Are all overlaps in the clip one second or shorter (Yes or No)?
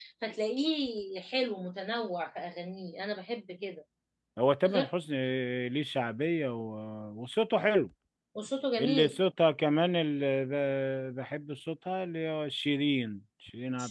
Yes